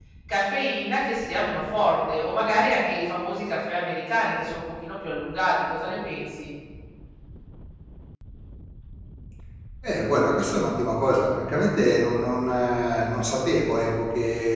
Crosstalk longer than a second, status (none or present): none